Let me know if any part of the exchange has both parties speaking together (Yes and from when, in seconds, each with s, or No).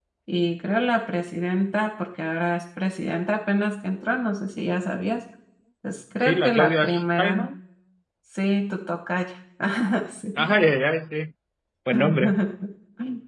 Yes, from 6.2 s